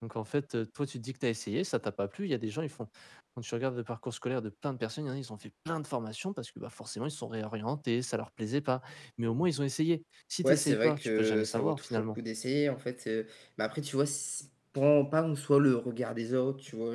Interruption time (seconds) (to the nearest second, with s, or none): 10 s